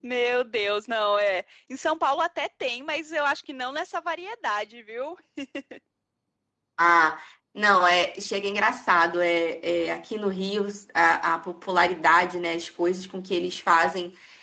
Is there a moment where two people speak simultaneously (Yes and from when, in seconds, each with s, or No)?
No